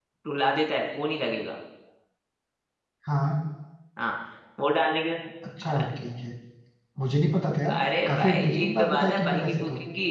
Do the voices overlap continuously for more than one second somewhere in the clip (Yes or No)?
Yes